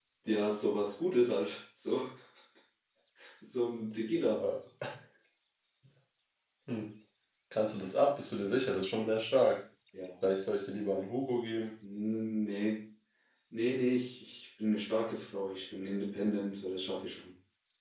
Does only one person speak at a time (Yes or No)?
Yes